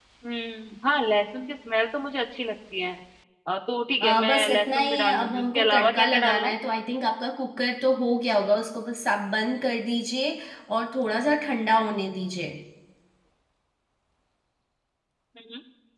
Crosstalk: present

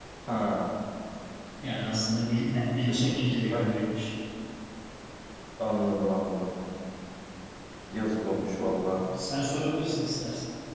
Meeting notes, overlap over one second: none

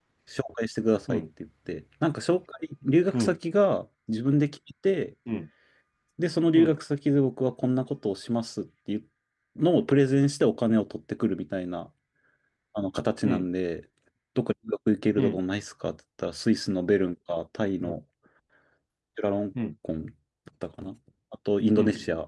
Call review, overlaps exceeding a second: none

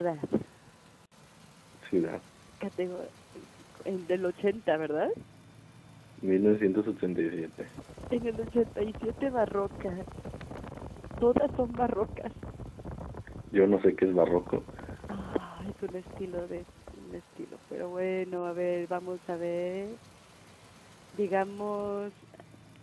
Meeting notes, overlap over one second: none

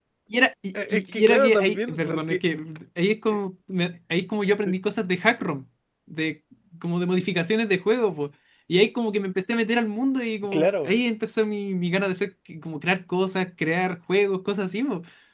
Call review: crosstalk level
present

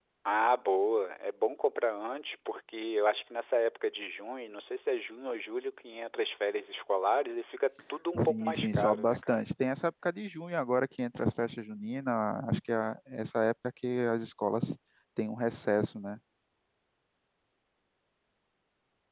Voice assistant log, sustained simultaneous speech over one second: present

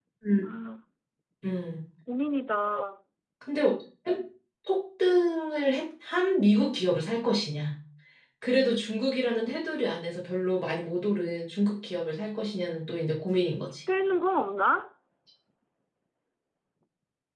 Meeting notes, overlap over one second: none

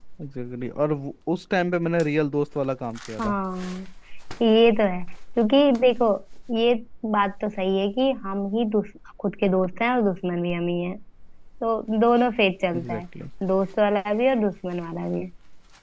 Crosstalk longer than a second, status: none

